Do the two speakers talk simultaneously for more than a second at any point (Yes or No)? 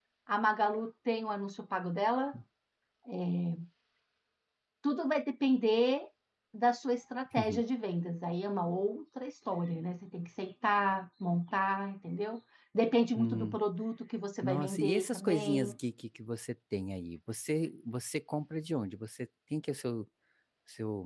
Yes